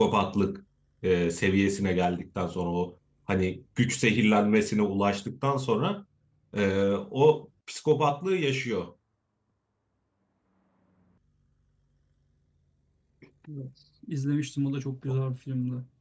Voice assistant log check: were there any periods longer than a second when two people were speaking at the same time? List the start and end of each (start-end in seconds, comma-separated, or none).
none